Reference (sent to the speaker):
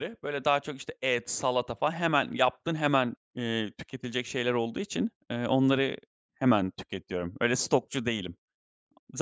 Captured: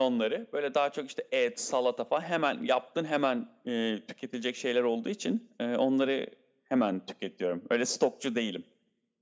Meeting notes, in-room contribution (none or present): none